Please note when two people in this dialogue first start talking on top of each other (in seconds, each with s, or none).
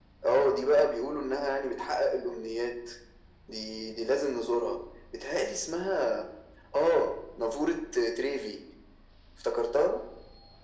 none